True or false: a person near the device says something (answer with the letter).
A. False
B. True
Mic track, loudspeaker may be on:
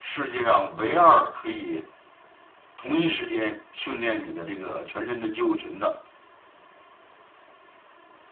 A